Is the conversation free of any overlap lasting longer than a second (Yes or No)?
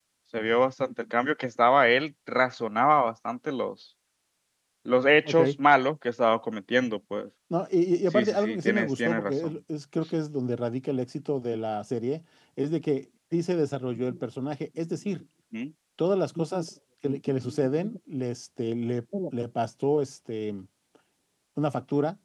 No